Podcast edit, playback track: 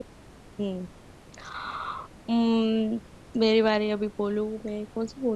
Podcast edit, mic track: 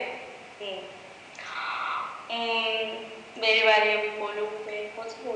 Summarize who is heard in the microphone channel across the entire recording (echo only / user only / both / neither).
echo only